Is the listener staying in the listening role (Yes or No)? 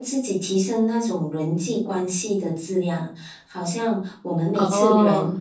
Yes